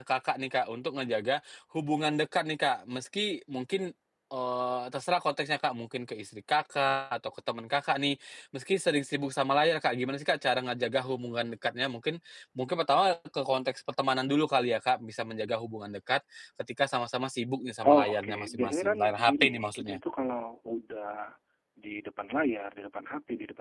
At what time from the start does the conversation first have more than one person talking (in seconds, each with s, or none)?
17.8 s